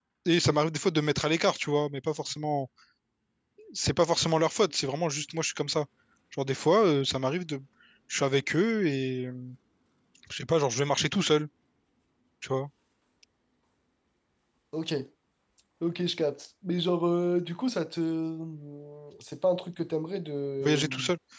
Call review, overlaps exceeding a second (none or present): none